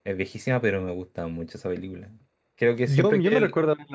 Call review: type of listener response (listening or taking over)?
taking over